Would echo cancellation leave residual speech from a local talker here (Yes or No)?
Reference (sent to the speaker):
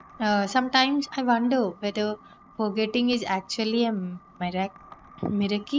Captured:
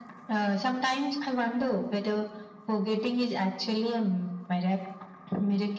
No